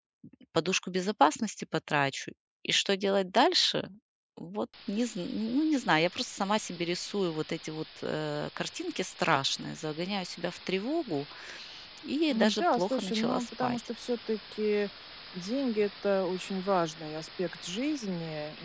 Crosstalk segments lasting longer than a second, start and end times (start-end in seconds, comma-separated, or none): 12.3-13.8